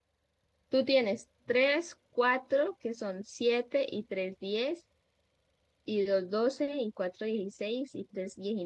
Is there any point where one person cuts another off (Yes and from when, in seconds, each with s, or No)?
No